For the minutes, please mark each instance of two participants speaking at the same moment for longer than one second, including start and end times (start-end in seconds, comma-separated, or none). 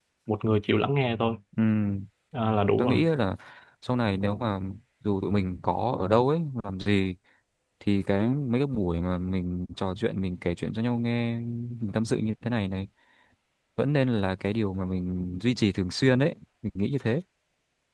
none